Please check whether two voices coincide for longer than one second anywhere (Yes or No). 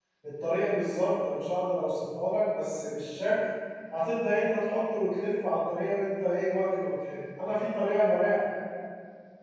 No